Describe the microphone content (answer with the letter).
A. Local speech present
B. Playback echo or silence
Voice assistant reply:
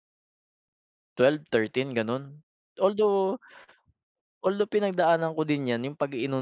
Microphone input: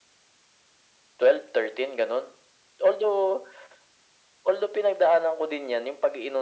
B